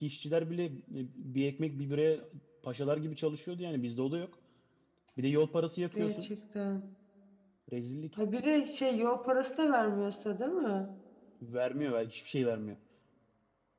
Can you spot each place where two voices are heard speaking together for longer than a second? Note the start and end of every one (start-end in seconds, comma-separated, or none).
none